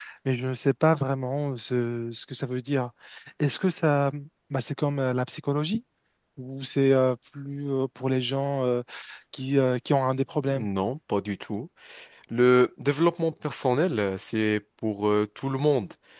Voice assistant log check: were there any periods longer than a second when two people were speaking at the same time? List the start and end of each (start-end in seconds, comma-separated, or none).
none